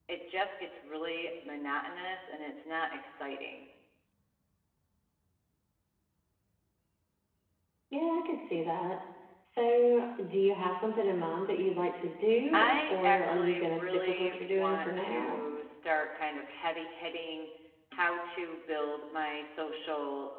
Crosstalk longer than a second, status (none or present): present